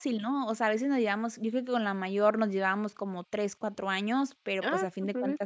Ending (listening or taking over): listening